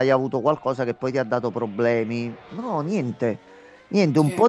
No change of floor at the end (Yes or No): Yes